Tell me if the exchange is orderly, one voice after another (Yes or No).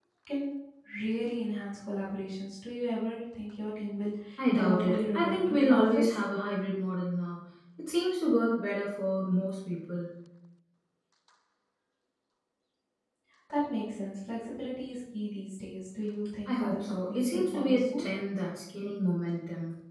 No